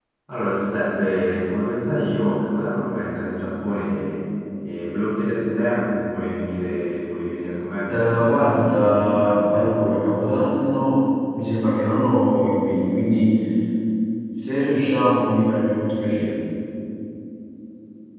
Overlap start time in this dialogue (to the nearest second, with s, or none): 8 s